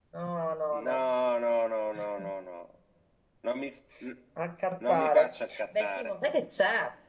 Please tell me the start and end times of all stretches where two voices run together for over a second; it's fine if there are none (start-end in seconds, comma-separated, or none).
4.9-6.1